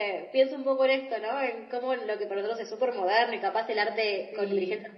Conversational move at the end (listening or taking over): listening